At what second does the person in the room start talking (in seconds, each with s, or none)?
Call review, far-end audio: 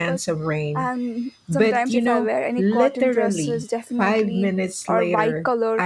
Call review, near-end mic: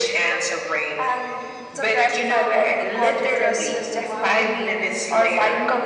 2.3 s